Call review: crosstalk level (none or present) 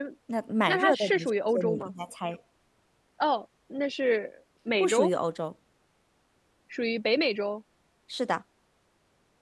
present